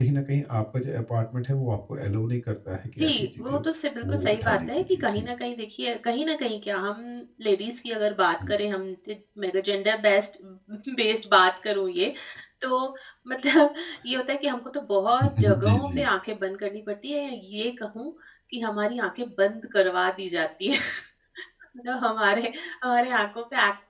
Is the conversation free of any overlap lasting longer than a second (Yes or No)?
No